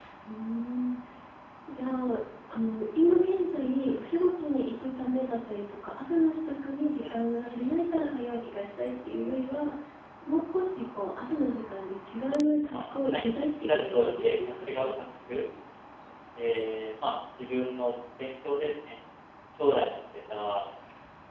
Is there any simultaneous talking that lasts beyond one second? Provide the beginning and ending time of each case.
12.7-14.9

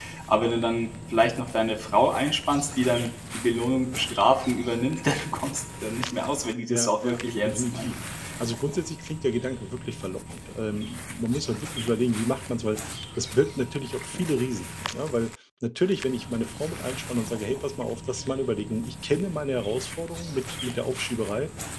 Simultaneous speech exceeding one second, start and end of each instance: 6.7-8.0

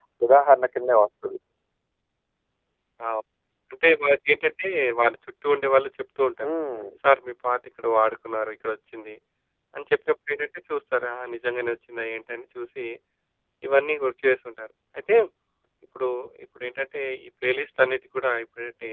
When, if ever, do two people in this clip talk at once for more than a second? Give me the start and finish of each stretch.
none

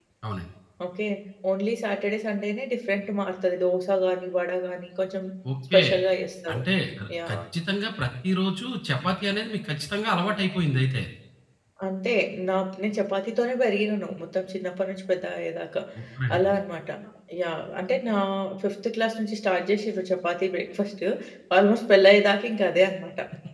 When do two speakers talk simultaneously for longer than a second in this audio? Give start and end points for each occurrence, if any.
none

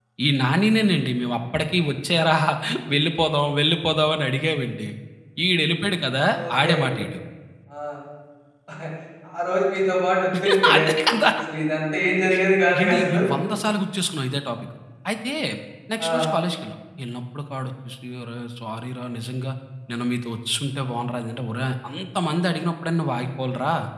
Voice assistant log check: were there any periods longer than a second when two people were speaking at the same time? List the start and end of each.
none

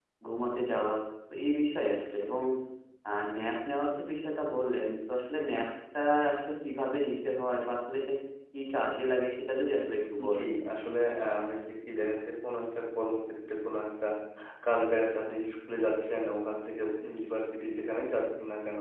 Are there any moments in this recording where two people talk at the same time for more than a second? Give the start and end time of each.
none

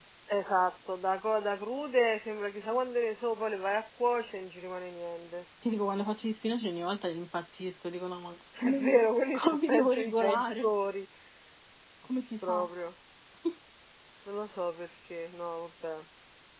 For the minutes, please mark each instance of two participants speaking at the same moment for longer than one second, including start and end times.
9.3-10.7

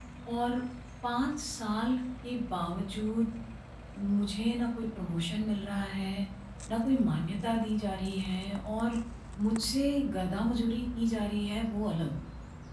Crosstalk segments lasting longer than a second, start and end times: none

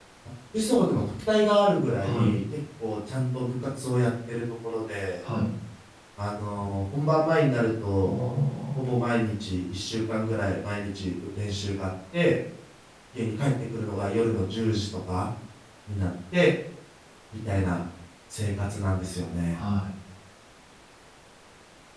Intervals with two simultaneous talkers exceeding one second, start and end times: none

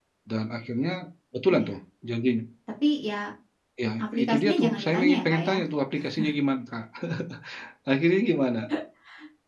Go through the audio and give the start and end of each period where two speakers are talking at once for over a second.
4.0-5.6

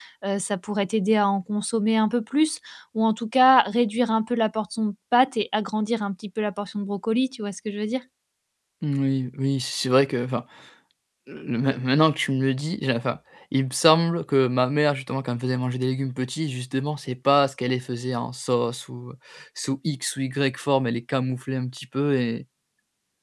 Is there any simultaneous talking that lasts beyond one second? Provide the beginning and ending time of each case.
none

